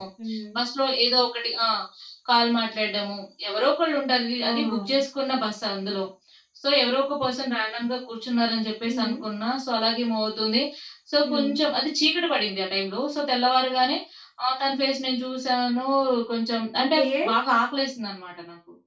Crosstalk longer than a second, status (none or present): none